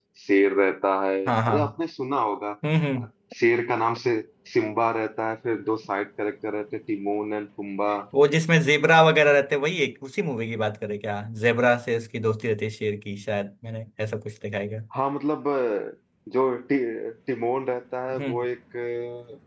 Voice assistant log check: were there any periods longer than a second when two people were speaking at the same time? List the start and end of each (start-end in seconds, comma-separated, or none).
none